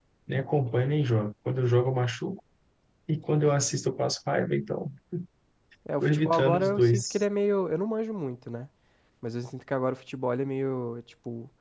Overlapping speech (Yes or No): Yes